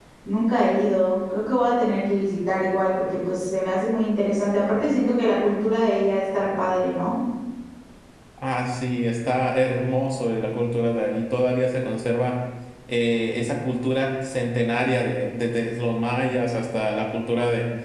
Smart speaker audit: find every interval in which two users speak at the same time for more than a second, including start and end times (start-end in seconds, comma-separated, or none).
none